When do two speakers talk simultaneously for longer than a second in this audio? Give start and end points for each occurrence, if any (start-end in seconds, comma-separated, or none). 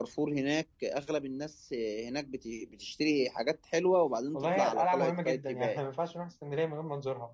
4.3-5.8